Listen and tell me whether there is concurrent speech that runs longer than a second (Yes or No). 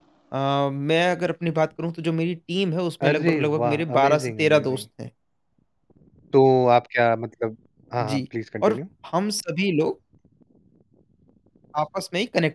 Yes